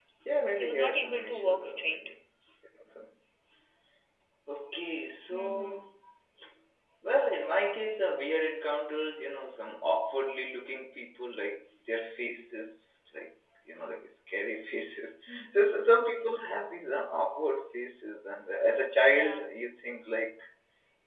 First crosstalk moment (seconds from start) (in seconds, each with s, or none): 0.6 s